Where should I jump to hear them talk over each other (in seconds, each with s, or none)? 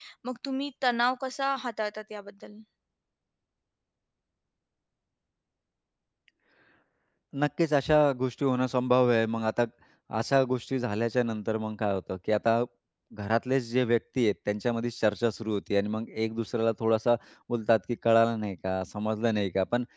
none